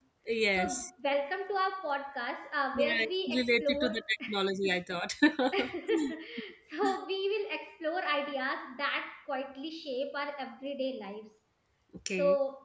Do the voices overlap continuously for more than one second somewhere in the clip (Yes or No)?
Yes